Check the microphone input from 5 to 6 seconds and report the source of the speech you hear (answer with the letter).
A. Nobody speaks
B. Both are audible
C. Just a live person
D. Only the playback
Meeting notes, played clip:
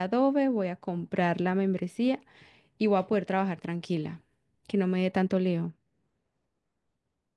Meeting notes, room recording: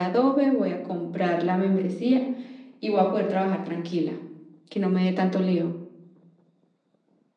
D